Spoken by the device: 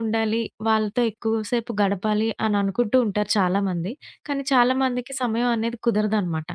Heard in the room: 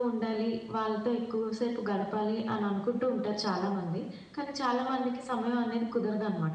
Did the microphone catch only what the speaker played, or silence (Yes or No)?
Yes